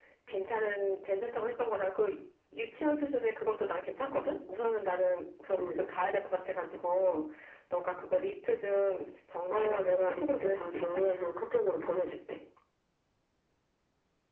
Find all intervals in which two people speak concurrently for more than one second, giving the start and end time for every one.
9.5-11.0

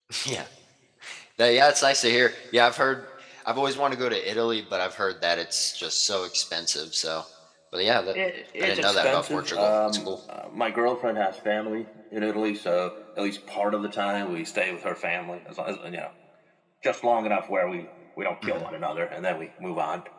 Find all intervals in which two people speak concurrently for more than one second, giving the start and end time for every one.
8.6-10.1

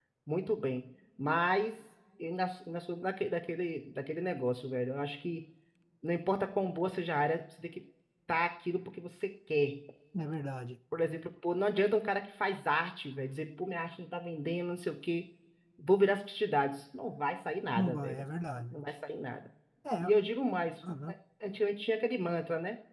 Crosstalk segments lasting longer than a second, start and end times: none

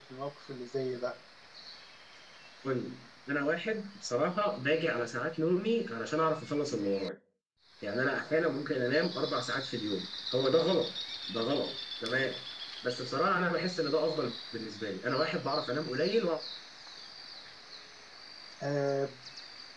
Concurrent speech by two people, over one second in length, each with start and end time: none

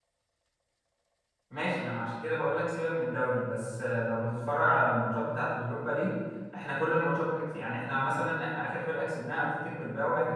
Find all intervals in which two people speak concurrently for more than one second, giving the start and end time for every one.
none

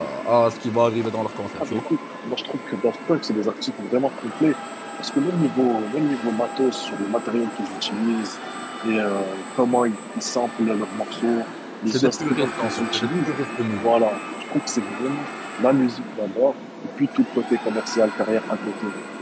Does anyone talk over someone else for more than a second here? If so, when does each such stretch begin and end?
11.9-13.3

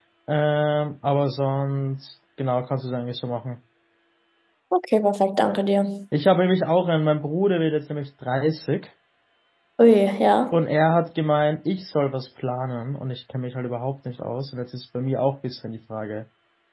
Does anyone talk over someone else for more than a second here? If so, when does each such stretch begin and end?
none

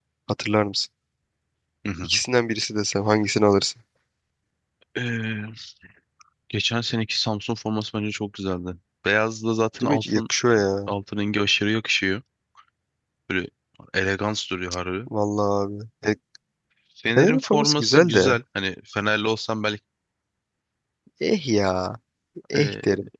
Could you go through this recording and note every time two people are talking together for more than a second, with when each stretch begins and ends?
17.2-18.4

